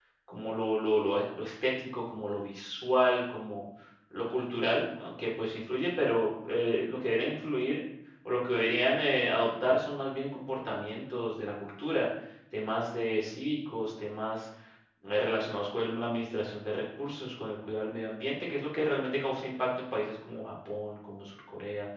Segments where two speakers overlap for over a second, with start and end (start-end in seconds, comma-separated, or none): none